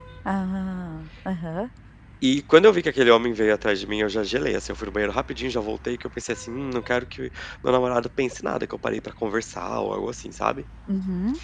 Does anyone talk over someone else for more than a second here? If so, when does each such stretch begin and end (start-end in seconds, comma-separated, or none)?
none